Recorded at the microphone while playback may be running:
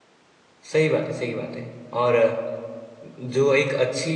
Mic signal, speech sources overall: user only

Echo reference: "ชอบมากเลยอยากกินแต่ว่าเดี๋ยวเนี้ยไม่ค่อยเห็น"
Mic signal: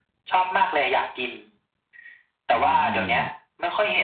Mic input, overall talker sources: both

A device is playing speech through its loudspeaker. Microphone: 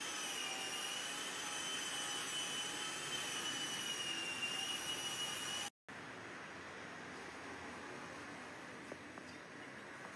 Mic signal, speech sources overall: neither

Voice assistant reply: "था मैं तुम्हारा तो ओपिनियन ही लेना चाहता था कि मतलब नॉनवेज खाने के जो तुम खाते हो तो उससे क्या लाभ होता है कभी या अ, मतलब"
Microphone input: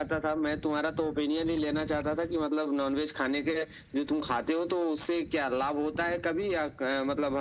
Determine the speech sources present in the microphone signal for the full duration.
echo only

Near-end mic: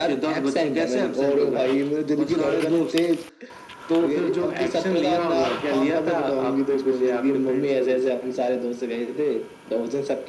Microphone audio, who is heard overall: echo only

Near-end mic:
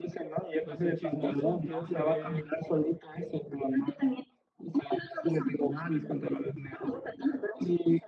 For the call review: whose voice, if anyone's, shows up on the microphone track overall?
both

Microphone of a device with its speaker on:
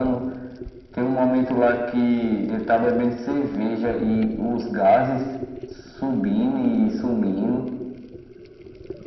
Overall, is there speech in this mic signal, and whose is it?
echo only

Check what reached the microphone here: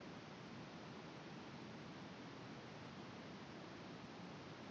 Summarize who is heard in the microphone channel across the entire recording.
neither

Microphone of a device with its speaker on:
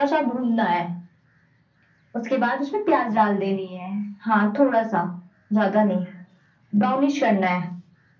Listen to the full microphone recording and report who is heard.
echo only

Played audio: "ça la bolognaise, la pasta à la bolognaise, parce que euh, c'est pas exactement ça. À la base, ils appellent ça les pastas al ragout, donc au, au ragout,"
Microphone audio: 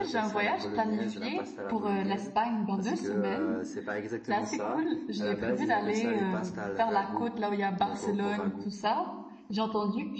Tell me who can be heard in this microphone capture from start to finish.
both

